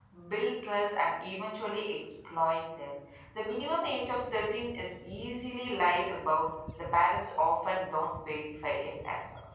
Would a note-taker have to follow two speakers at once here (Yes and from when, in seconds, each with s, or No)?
No